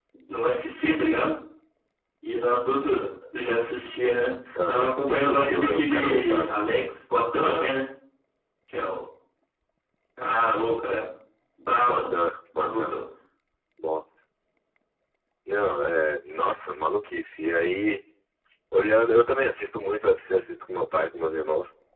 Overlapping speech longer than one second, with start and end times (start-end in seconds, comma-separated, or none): 4.7-6.5